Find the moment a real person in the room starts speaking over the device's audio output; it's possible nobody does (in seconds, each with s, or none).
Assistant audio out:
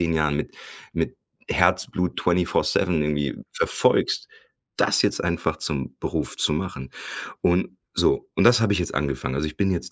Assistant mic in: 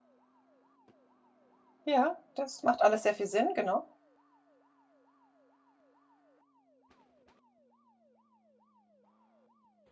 1.9 s